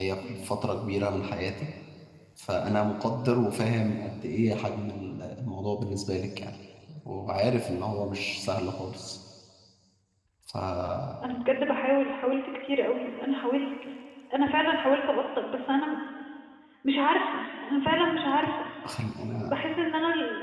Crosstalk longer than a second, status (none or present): none